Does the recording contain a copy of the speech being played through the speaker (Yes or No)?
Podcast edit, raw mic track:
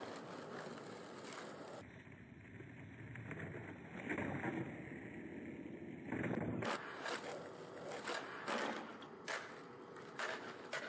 No